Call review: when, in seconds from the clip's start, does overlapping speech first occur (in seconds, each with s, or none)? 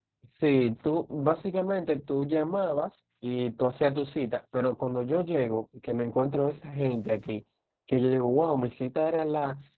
none